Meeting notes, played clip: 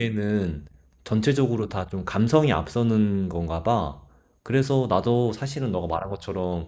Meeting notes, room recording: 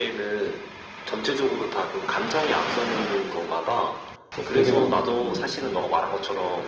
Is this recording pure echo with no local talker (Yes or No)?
No